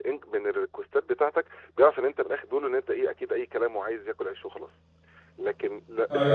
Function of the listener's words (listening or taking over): taking over